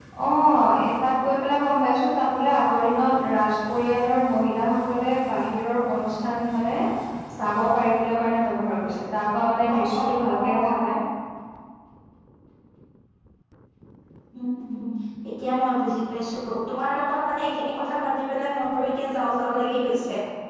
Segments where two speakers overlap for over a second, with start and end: 9.7-11.0

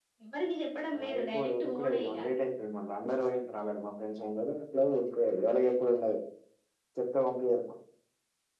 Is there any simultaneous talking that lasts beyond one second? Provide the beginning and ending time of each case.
1.0-2.2

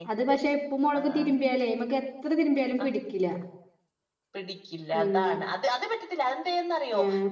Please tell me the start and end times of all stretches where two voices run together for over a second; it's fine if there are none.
none

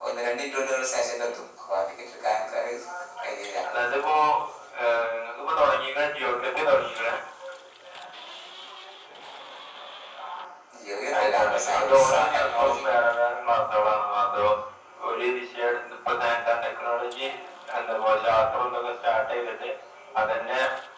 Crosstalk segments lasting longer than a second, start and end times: 11.1-12.8

